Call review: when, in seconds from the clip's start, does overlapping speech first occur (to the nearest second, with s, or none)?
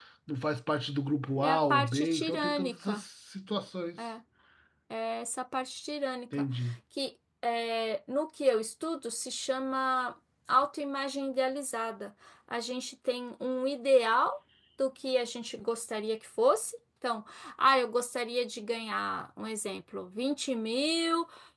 1 s